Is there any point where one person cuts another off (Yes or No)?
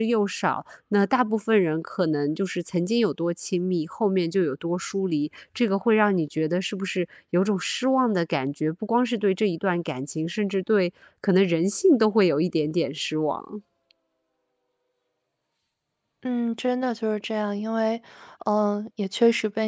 No